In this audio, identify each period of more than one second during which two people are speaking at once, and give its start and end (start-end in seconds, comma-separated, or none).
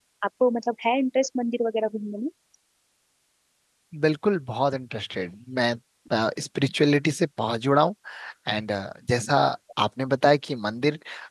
none